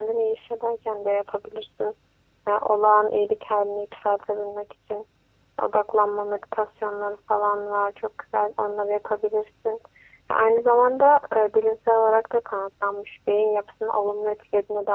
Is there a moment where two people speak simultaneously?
No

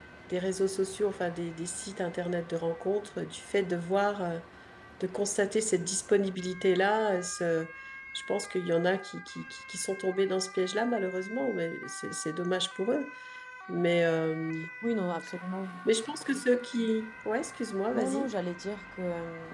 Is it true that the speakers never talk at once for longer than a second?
Yes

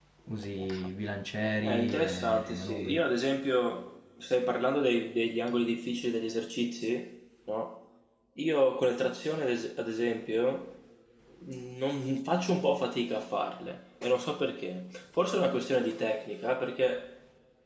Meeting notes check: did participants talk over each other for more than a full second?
Yes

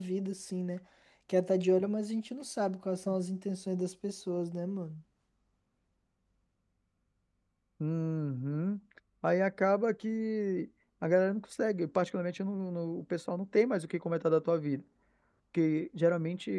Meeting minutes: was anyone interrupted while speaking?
No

